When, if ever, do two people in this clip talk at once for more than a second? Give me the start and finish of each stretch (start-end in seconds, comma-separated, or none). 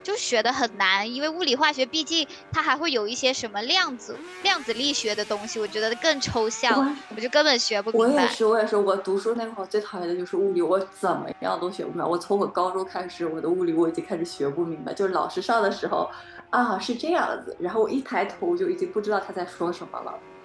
none